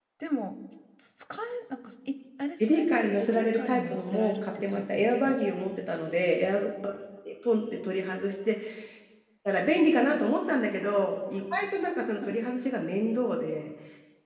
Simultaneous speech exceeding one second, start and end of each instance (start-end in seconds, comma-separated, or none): 2.6-5.4